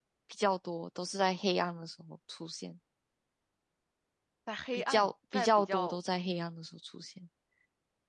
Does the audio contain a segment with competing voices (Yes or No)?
Yes